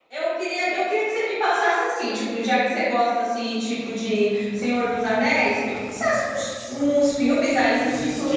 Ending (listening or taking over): listening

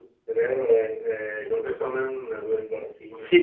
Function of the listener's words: taking over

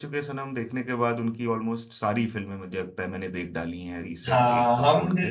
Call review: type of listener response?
taking over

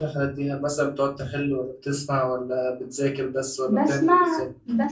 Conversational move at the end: taking over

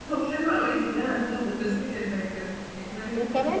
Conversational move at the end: taking over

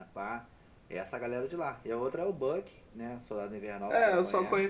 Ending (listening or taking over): taking over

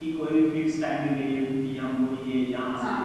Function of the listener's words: listening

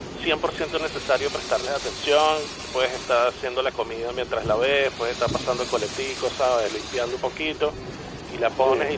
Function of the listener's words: listening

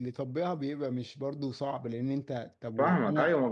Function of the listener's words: taking over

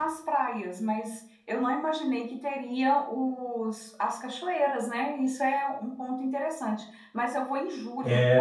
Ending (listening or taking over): listening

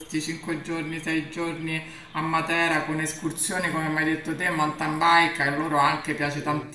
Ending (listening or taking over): listening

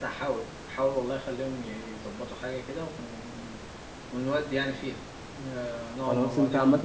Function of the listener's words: taking over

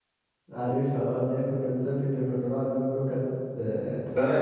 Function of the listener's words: taking over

